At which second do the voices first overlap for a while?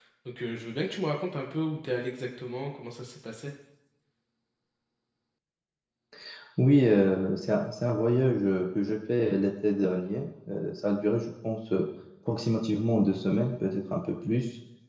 none

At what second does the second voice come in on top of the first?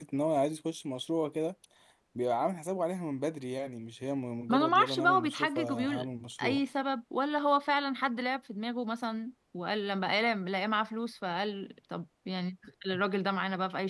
4 s

